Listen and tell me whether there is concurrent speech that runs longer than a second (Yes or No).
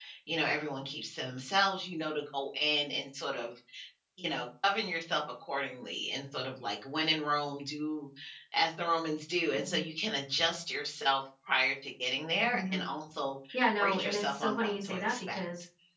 Yes